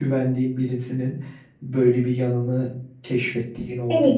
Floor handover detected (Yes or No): Yes